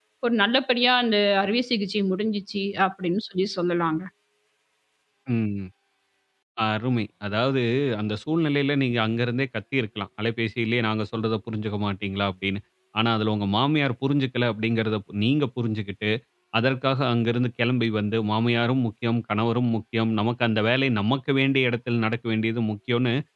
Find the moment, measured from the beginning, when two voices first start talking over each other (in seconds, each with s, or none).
none